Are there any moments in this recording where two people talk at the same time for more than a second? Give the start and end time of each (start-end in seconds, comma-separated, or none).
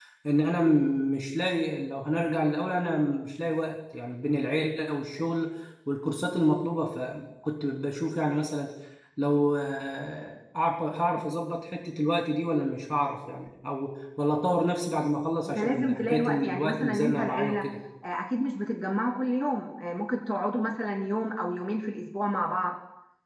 15.4-17.6